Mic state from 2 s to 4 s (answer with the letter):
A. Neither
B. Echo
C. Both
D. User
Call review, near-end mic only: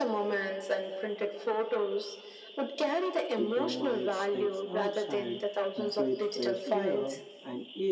C